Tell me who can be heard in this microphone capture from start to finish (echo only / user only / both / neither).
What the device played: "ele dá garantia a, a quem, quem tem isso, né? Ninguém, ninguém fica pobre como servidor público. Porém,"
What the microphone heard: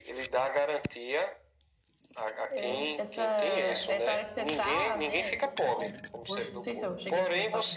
both